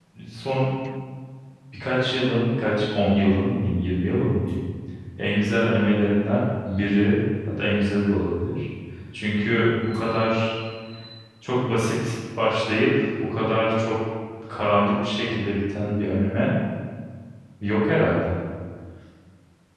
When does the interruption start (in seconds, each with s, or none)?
none